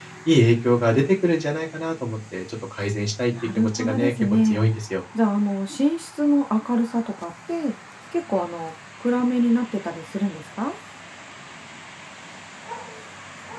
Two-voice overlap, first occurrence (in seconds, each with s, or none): 3.3 s